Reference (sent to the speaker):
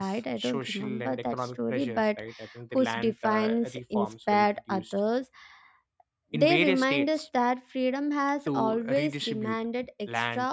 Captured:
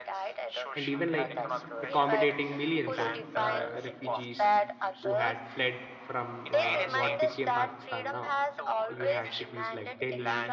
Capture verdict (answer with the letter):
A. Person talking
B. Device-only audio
A